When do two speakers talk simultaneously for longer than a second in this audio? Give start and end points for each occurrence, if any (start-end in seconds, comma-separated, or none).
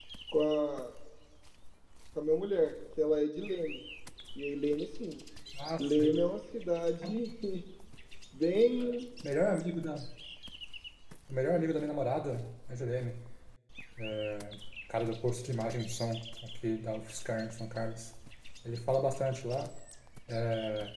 none